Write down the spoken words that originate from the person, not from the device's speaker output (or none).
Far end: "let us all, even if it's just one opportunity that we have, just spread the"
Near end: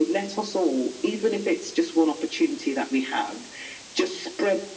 none